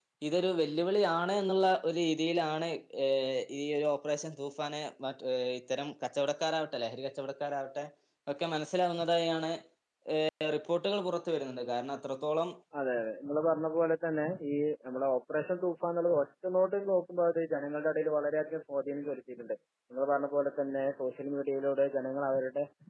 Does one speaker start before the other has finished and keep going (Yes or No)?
No